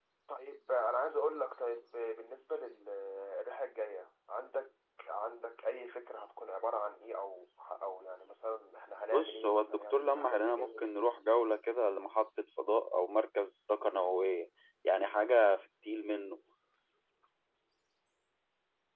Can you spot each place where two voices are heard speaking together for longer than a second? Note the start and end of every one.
9.1-10.7

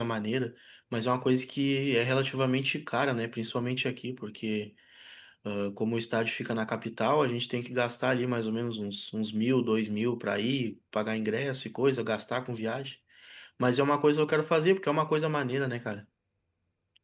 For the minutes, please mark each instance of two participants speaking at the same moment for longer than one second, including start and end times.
none

